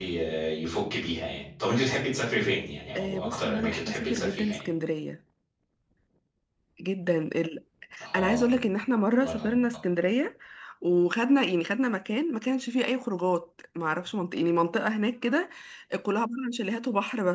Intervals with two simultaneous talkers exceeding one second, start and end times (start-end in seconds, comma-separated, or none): 3.0-4.6